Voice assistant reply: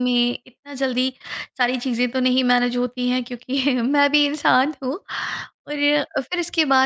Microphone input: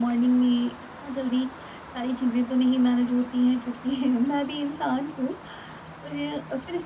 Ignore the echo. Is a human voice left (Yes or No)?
No